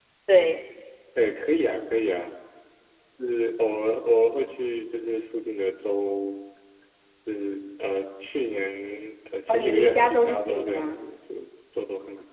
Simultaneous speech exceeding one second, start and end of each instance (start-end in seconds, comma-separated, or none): 9.5-10.9